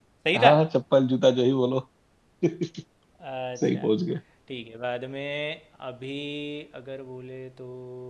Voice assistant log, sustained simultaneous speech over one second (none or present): none